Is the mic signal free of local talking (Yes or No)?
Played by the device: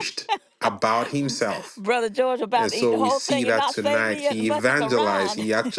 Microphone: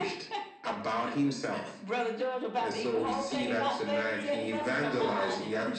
Yes